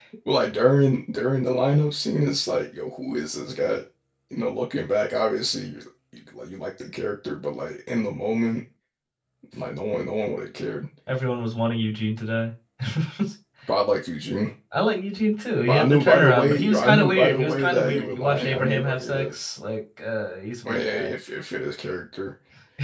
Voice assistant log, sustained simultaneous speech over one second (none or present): present